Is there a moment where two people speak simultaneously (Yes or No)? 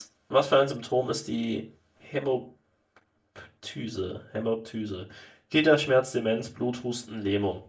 No